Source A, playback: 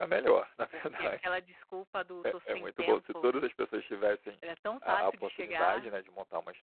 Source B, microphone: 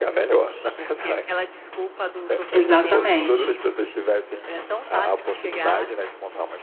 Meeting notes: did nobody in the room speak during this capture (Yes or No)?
No